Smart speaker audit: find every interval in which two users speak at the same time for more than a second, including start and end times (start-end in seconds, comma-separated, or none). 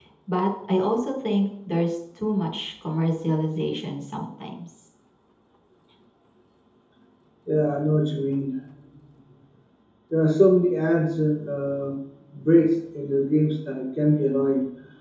none